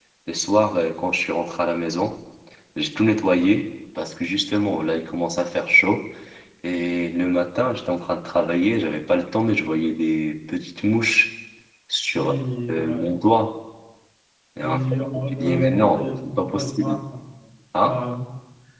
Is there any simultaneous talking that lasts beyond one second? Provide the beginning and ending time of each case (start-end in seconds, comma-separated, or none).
14.6-17.0